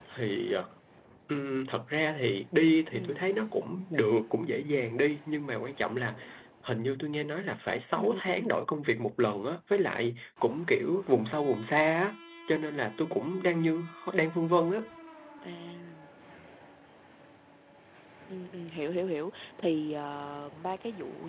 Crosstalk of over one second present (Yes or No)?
No